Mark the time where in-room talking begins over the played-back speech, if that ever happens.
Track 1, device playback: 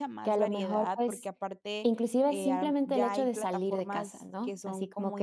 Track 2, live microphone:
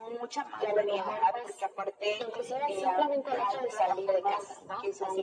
none

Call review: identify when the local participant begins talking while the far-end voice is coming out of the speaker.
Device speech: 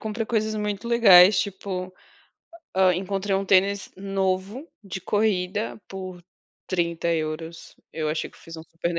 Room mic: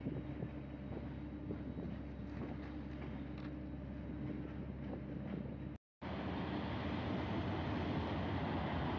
none

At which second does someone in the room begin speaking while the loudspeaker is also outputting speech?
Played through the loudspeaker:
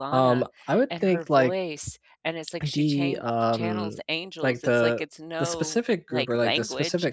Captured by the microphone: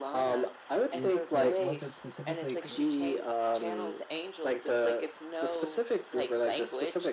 0.9 s

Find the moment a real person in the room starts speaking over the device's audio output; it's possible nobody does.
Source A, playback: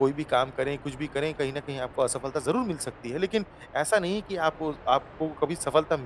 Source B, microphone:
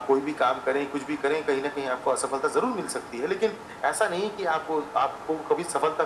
none

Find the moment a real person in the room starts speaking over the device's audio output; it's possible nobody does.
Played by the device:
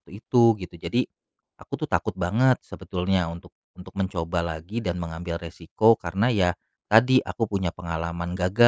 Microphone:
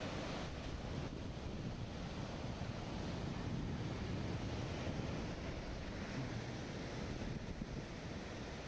none

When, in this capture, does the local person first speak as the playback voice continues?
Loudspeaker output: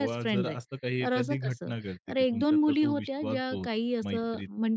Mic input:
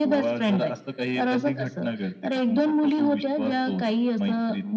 none

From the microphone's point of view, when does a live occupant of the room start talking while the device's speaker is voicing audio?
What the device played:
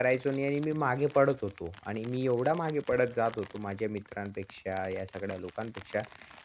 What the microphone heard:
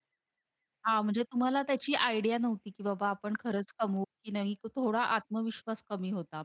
0.9 s

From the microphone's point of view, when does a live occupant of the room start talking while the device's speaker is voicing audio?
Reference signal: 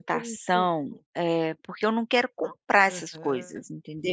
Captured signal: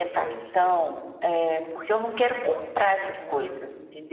none

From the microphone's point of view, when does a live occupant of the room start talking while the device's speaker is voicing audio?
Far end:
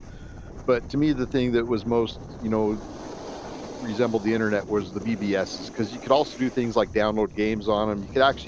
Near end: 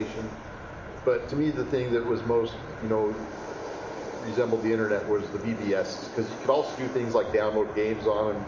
none

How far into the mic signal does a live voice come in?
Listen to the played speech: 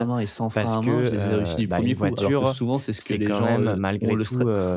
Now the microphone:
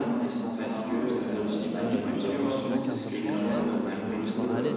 1.8 s

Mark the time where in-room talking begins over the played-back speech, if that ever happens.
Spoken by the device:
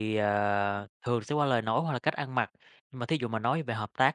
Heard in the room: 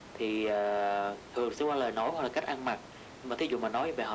none

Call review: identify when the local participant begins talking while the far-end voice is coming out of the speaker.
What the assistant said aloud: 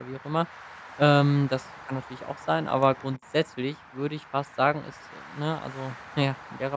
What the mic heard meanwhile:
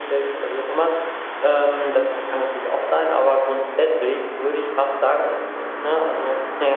none

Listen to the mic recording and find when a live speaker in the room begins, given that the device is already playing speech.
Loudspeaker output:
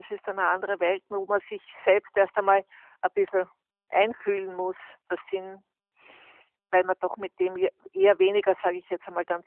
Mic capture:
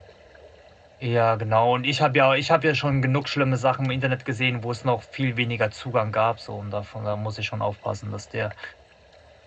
1.0 s

